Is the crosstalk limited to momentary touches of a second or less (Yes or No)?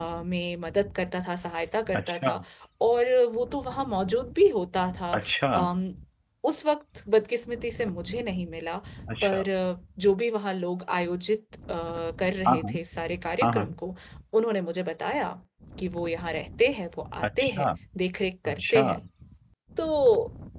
Yes